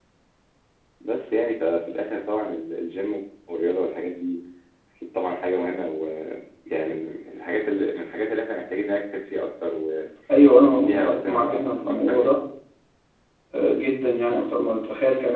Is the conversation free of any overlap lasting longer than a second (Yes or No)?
No